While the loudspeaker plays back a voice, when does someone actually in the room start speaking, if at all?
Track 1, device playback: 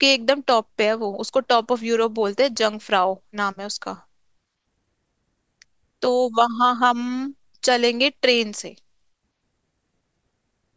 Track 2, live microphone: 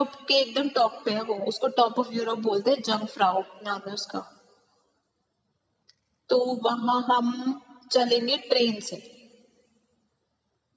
none

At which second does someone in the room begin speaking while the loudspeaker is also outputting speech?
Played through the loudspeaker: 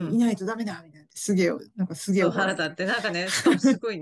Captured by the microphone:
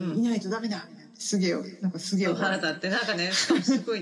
none

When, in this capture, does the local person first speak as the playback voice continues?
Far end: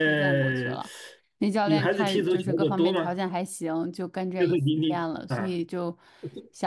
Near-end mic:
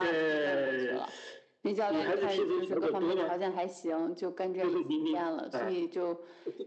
none

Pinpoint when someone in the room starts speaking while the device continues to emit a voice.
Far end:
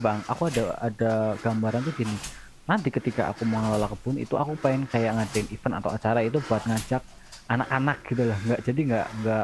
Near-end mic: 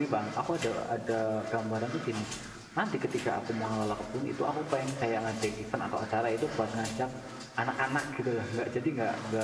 none

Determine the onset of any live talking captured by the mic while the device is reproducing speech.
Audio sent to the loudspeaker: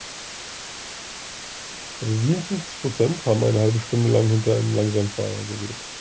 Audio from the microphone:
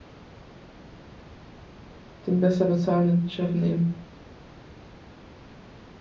2.3 s

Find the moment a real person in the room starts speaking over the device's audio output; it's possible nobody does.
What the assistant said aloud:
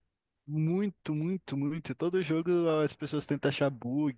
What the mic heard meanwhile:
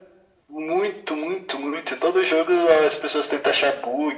none

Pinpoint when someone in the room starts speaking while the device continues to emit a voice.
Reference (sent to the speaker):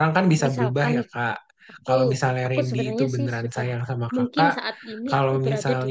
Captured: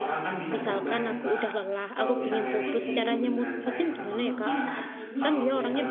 0.5 s

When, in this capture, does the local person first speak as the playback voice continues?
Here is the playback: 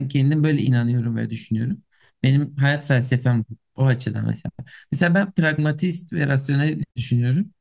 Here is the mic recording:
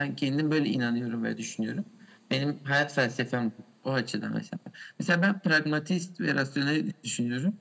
none

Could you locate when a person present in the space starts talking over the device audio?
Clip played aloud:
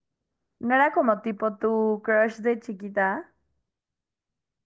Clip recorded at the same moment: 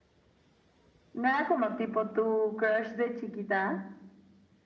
none

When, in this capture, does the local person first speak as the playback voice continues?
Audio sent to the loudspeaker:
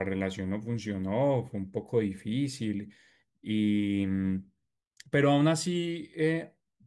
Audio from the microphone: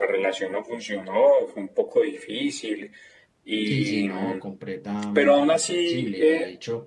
3.6 s

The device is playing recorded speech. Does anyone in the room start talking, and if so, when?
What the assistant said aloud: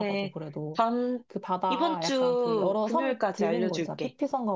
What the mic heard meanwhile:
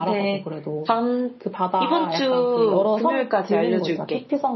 none

